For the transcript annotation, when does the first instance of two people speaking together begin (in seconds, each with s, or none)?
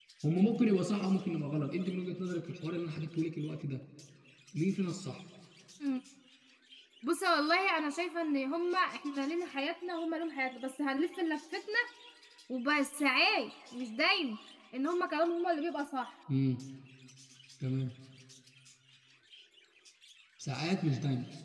none